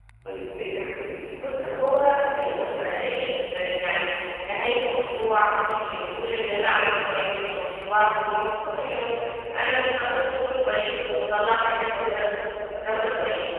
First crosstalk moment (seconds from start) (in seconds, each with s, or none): 1.4 s